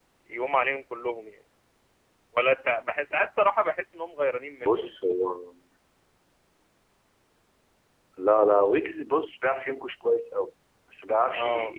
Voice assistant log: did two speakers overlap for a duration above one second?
No

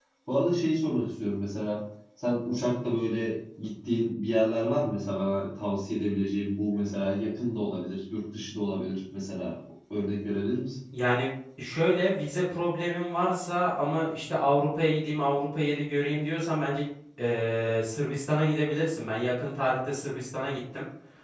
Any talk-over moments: No

